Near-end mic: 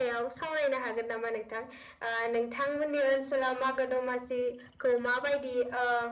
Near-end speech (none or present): none